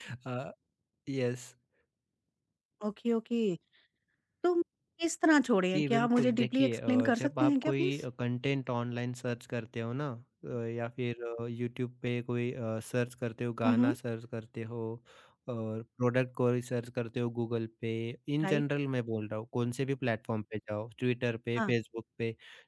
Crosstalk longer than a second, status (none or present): present